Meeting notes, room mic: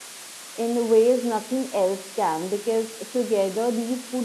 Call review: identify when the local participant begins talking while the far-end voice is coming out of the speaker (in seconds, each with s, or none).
0.5 s